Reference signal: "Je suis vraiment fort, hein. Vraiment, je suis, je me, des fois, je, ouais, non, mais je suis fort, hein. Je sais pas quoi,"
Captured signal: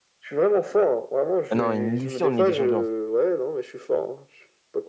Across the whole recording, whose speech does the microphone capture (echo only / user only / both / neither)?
both